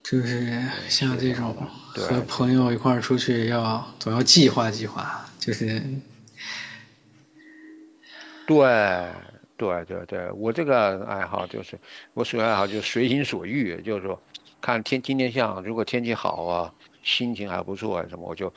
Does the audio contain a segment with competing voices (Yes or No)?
Yes